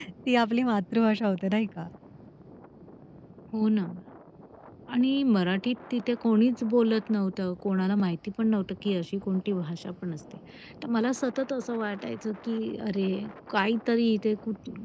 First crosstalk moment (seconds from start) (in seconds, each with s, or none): none